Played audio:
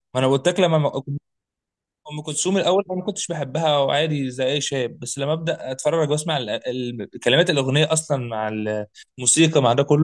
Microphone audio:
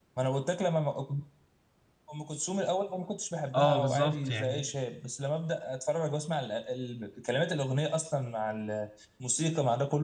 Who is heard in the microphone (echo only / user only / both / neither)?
both